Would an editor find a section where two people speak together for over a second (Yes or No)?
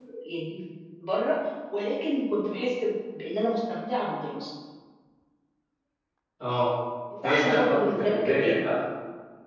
Yes